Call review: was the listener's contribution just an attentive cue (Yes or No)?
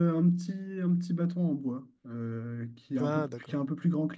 Yes